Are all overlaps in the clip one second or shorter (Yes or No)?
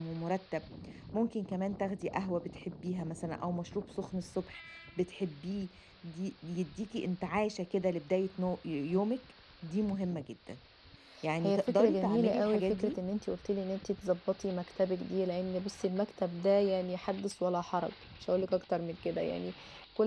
No